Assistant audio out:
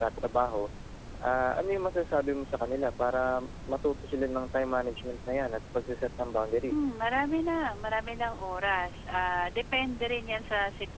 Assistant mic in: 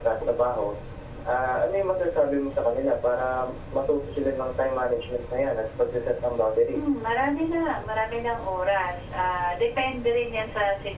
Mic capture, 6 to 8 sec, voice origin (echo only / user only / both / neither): echo only